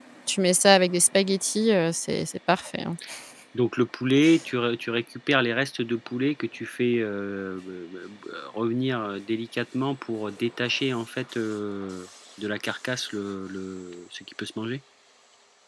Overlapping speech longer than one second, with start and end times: none

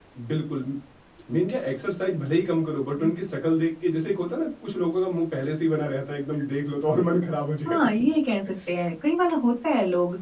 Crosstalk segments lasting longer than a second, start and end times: none

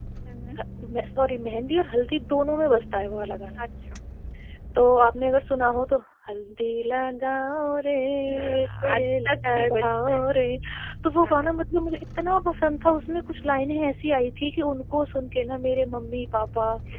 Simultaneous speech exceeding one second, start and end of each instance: 8.3-10.2

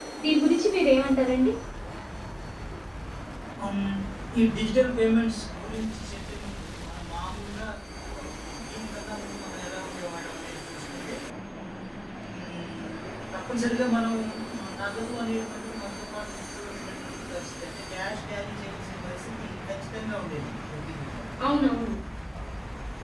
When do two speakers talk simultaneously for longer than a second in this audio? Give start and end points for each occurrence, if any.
none

